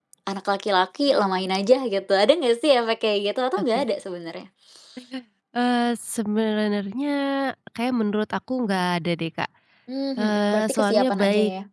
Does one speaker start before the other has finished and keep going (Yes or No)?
Yes